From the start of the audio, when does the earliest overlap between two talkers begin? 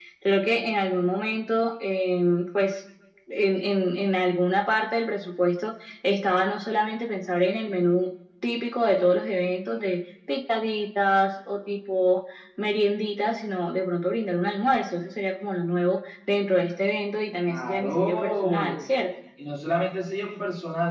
17.5 s

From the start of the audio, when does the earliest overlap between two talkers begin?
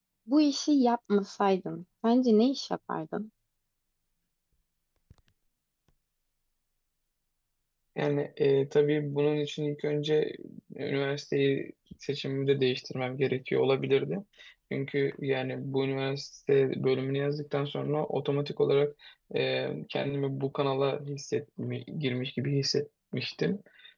none

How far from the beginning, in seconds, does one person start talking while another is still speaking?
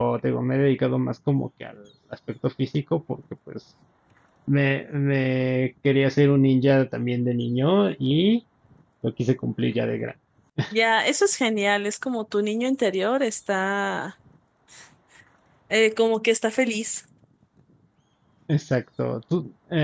none

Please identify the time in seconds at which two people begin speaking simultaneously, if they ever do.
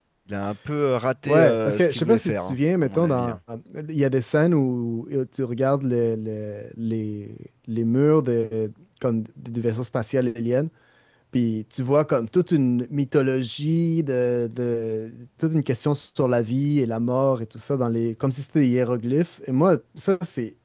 1.3 s

